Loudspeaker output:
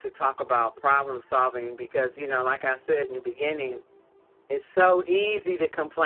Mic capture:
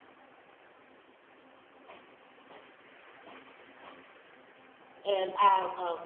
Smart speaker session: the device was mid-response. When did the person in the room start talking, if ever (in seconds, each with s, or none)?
5.0 s